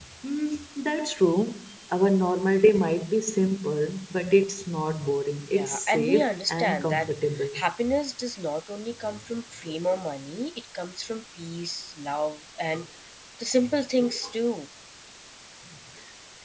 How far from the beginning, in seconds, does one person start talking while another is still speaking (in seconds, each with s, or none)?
5.5 s